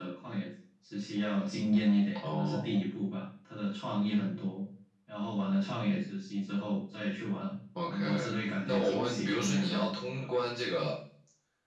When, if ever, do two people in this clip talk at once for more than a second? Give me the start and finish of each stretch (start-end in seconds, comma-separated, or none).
8.7-10.3